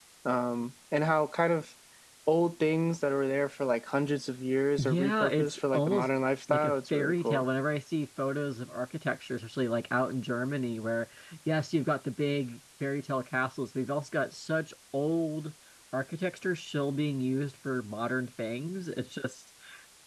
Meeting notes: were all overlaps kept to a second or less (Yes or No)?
No